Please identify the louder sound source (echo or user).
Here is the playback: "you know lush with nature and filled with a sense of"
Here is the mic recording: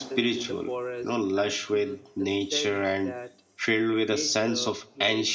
echo